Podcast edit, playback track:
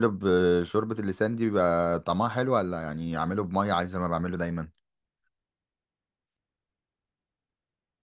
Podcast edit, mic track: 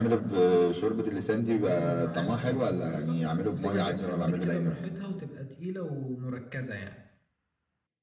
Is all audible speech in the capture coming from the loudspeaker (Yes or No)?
No